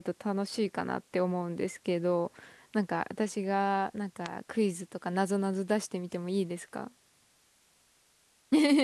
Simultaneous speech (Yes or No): No